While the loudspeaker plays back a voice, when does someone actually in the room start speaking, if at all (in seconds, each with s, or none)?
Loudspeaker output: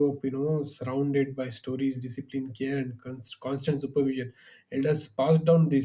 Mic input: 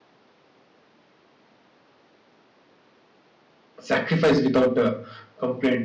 3.8 s